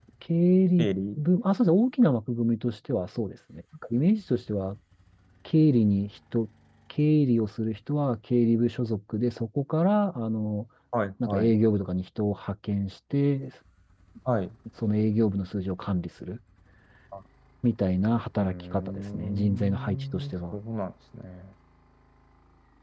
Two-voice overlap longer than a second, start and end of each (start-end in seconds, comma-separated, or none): 18.4-20.6